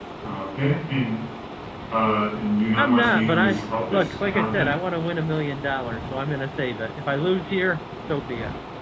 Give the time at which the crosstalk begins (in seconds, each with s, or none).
2.8 s